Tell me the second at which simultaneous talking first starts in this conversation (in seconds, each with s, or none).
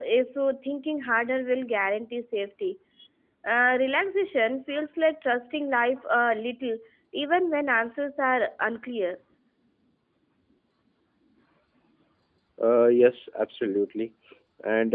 none